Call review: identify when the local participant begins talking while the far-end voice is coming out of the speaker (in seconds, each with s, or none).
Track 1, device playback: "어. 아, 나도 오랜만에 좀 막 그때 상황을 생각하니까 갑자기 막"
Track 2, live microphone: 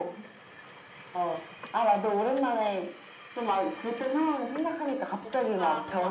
5.2 s